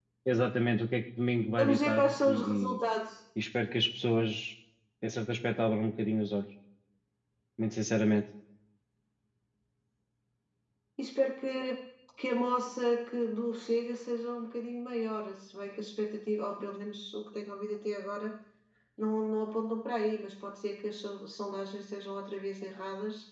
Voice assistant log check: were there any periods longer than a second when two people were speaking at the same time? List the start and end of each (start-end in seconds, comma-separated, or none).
1.6-2.8